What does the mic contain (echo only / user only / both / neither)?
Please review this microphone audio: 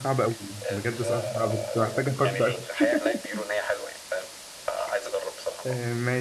both